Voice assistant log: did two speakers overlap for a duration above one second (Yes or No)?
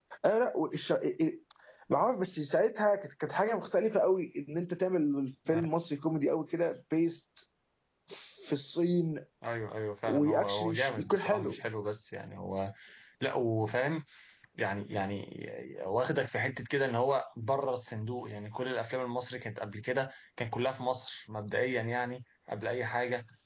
Yes